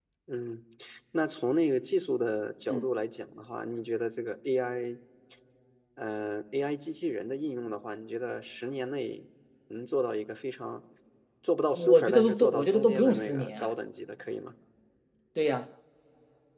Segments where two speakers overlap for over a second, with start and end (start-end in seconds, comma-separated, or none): 11.7-13.7